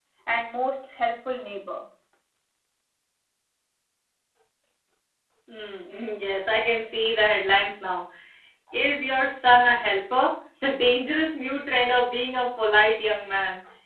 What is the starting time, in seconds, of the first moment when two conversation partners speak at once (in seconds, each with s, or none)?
none